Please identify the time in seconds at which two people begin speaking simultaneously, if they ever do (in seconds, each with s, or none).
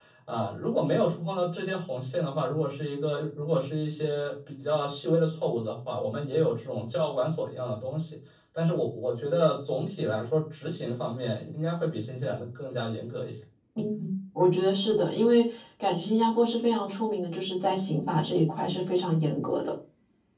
none